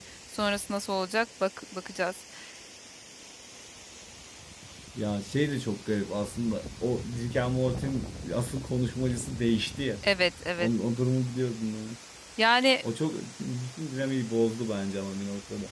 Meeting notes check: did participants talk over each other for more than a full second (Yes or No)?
No